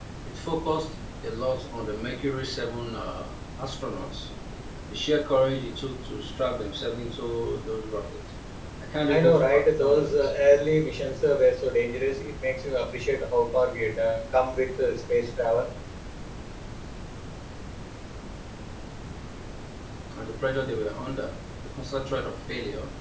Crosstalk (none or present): present